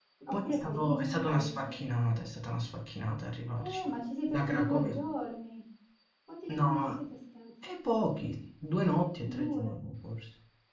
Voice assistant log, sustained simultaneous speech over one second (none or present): present